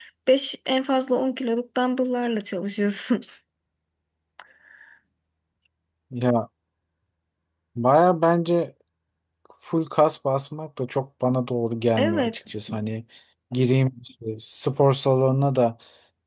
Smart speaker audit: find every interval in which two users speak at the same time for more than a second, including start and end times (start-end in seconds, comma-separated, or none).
none